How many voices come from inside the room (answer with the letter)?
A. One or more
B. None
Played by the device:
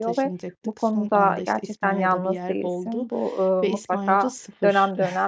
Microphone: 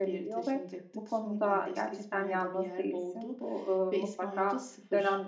B